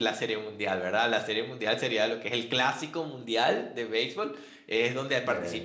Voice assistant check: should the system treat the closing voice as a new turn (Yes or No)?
No